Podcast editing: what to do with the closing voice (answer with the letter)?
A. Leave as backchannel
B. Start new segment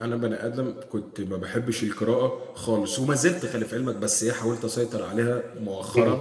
A